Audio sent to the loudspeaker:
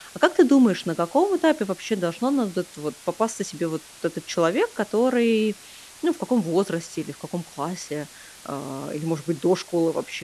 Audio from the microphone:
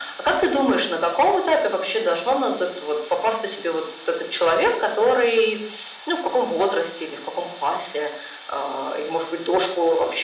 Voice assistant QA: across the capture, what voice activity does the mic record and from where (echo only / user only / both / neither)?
echo only